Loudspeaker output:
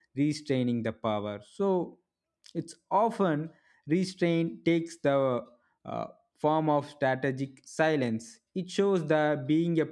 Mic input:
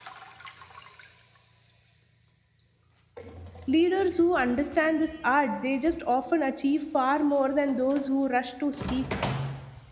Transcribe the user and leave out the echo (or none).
Leaders who understand this art, they just often achieve far more than those who rush to speak